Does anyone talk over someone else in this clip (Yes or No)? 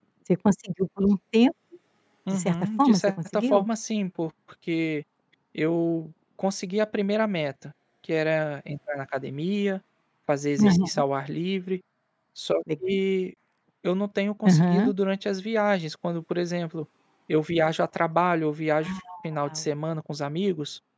Yes